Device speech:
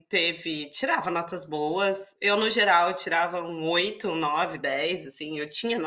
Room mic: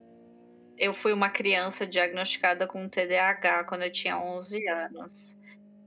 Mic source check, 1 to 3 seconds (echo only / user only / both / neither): user only